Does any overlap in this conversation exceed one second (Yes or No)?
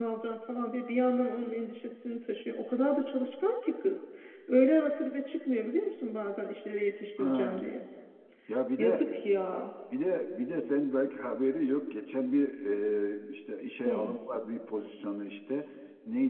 No